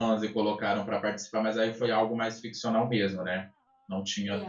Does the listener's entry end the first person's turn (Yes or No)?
Yes